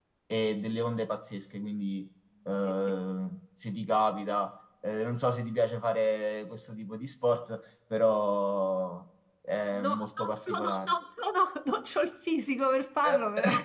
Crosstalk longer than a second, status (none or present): present